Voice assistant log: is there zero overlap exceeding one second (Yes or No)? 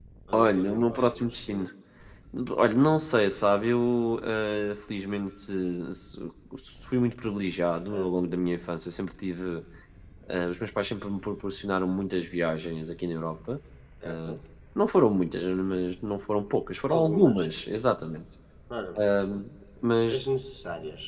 No